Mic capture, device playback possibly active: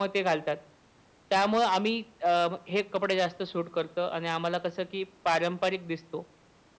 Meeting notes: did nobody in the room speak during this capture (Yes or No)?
Yes